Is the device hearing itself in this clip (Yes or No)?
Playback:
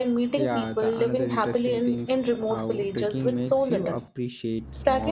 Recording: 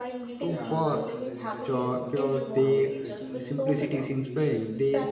Yes